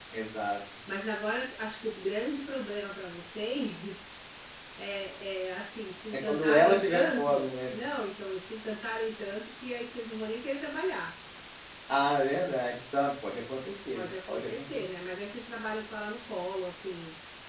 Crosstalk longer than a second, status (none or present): present